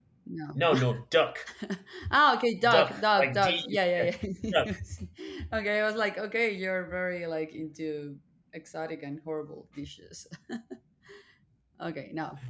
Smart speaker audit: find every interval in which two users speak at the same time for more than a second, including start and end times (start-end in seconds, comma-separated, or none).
2.7-4.1